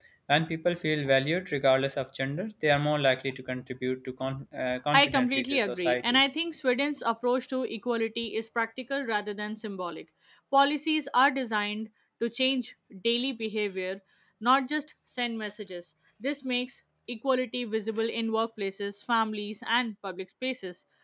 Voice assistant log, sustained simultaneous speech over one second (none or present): present